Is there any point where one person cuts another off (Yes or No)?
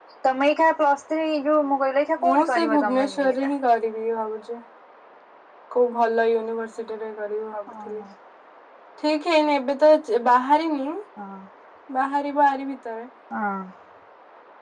Yes